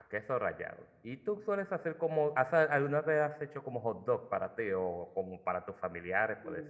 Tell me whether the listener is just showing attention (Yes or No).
No